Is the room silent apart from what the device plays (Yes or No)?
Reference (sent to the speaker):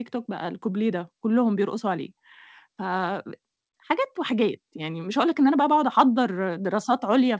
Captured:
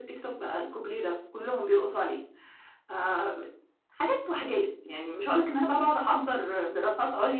Yes